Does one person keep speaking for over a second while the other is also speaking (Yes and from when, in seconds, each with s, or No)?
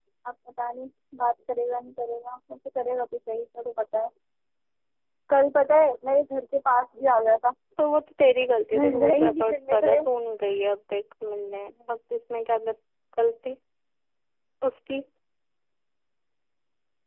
Yes, from 8.7 s